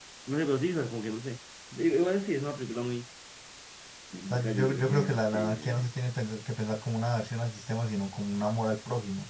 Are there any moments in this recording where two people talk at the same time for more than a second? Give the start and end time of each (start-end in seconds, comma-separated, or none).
4.3-5.9